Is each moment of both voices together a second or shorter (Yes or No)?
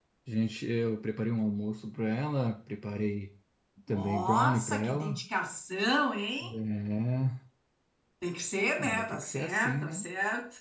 No